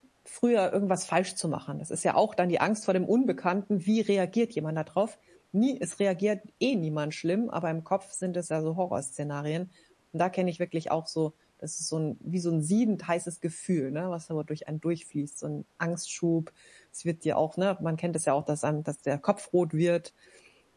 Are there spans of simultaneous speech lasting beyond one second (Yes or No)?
No